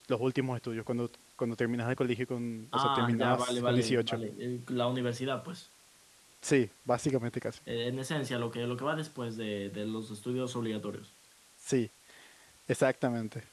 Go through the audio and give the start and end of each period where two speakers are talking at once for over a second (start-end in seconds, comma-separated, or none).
2.8-4.2